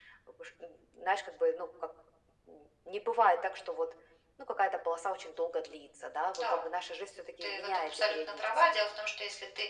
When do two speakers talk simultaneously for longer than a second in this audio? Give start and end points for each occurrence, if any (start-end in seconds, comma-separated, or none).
7.4-8.6